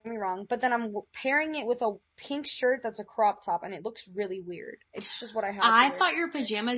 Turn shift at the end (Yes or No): Yes